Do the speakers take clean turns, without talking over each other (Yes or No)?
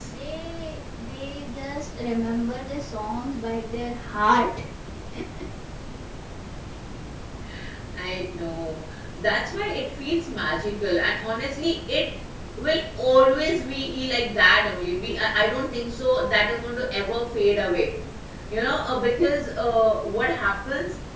Yes